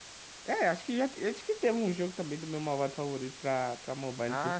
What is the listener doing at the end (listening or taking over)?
taking over